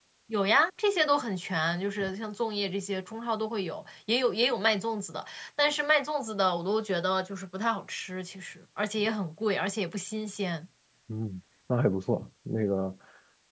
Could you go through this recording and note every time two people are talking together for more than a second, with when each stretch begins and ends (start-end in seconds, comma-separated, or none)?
none